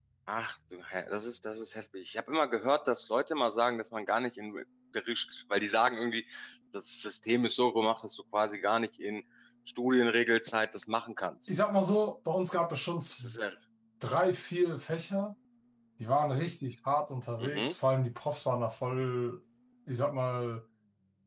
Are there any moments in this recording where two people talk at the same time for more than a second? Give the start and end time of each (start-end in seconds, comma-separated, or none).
none